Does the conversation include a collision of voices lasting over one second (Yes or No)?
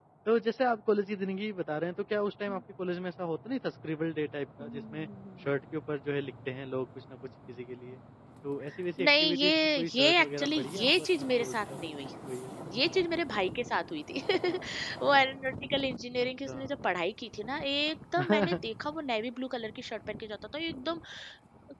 Yes